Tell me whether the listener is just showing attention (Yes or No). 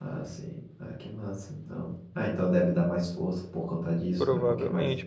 No